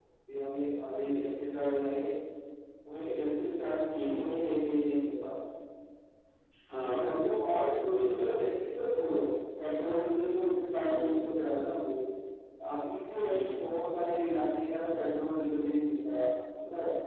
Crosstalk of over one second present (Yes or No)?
No